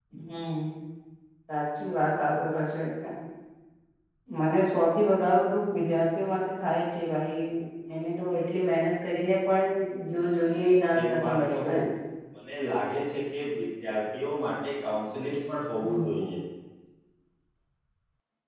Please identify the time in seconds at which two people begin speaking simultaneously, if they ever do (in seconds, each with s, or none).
10.4 s